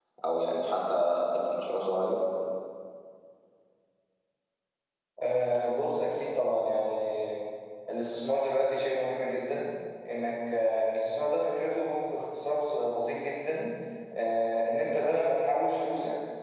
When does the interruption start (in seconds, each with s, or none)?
none